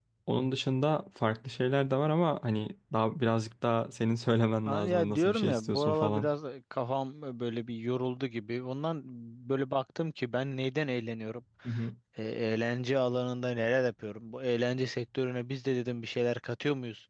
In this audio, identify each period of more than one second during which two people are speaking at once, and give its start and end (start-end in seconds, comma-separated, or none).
4.7-6.3